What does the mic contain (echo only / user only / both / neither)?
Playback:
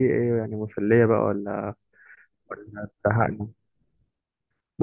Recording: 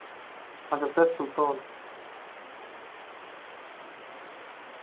user only